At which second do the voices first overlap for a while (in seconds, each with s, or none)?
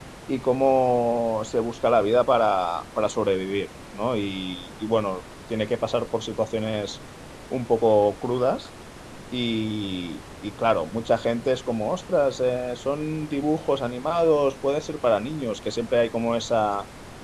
none